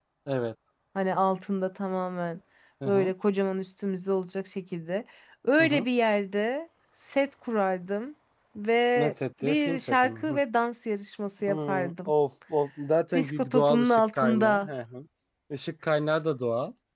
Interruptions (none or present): present